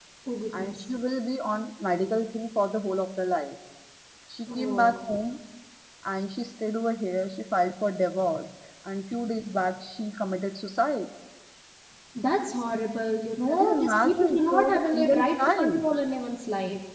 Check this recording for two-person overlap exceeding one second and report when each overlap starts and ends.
13.5-15.9

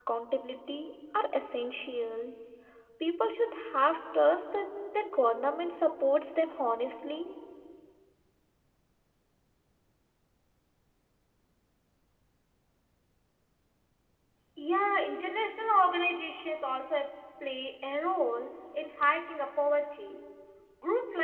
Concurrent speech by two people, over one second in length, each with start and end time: none

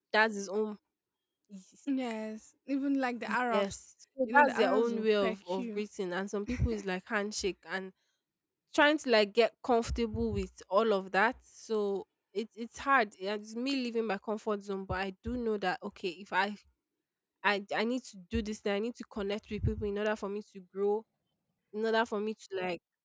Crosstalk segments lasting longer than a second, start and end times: 4.3-5.8

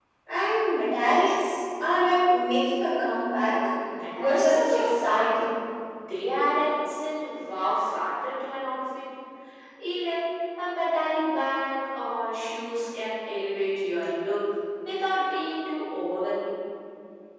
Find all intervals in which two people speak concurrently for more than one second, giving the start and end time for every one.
4.2-5.5

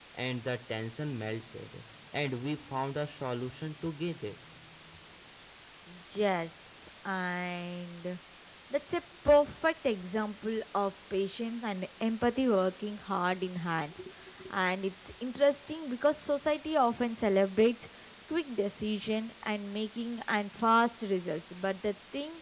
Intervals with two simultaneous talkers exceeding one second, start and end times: none

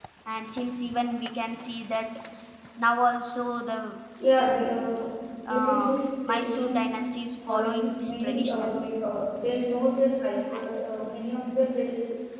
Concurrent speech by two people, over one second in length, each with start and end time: 5.5-6.9, 7.5-8.8

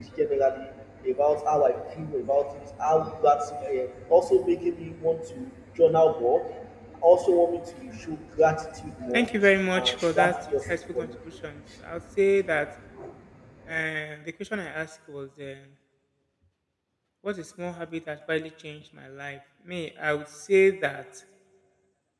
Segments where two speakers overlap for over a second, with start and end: 9.7-11.1

